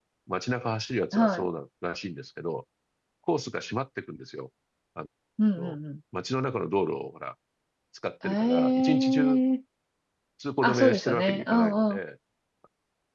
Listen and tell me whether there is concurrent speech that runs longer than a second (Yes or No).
Yes